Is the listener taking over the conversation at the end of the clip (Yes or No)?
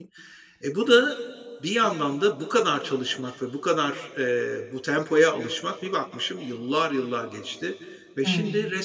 No